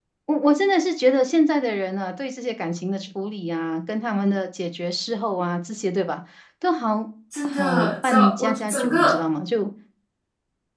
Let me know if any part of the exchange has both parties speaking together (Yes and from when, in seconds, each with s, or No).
Yes, from 7.4 s